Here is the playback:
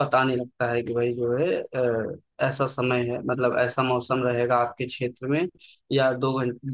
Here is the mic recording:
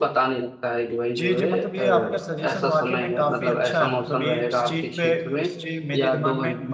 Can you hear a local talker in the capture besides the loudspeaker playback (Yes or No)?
Yes